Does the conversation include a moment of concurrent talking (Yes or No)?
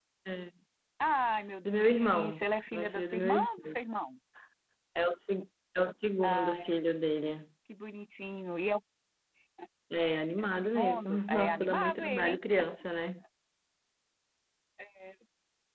Yes